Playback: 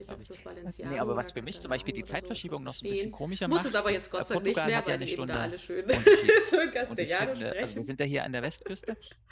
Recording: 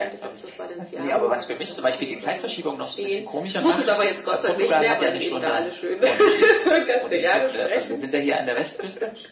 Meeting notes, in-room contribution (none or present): none